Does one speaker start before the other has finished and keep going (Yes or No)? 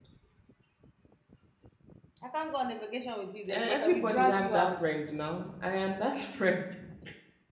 Yes